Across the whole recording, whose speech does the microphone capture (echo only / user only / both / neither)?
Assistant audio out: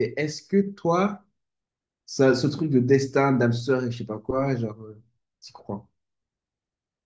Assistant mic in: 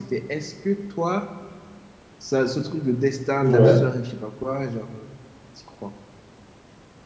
both